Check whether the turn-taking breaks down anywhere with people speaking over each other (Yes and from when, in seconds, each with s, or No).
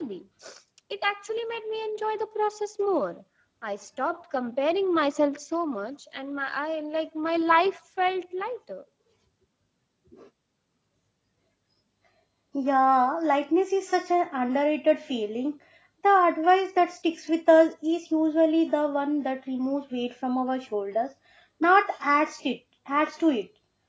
No